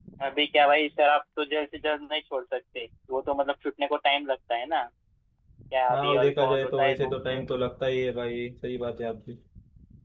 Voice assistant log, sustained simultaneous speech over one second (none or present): present